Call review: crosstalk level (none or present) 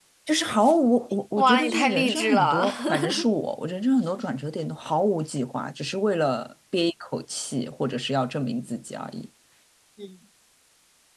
present